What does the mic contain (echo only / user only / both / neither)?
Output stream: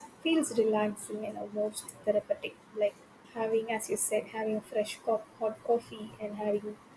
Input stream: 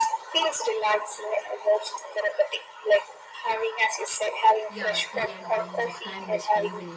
both